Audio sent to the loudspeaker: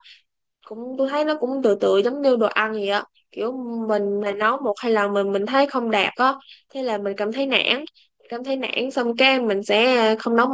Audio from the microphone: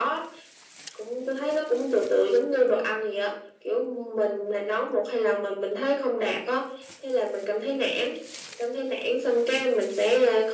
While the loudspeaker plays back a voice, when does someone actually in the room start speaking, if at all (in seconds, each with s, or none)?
none